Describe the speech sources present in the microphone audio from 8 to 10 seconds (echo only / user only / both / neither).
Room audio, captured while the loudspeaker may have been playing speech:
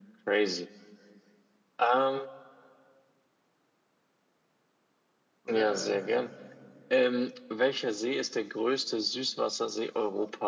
echo only